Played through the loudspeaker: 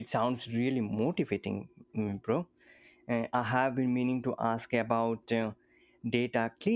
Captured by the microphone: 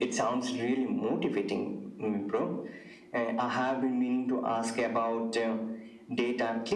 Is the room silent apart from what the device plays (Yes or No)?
Yes